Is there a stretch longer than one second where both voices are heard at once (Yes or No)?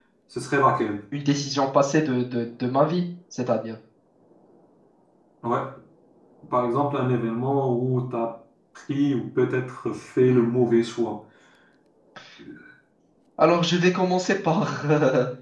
No